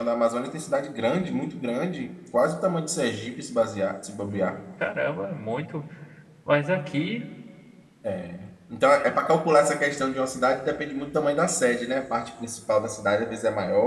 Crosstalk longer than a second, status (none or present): none